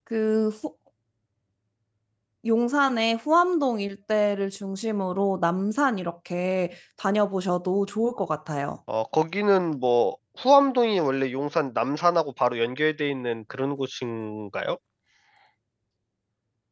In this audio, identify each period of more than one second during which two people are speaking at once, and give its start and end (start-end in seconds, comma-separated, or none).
none